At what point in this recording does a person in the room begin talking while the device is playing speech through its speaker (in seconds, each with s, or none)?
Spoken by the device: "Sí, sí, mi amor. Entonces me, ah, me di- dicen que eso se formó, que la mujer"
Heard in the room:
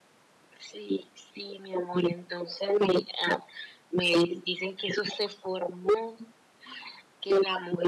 none